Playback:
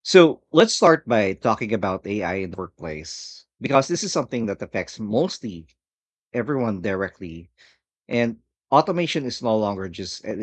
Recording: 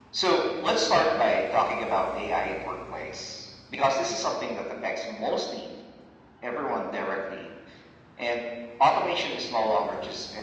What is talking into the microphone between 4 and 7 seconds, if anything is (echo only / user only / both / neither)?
echo only